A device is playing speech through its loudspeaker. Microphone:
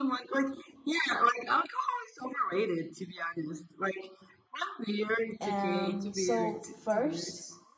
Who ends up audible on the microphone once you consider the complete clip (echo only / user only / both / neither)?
both